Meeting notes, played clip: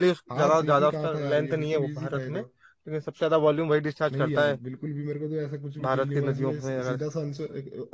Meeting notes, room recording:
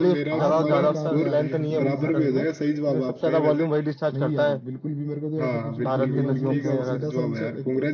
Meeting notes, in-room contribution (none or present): present